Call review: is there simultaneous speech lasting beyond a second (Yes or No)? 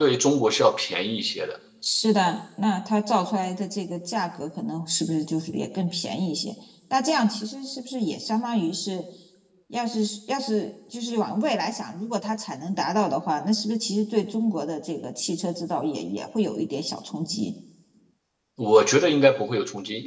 No